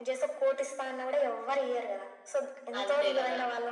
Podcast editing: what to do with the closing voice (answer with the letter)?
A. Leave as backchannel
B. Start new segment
A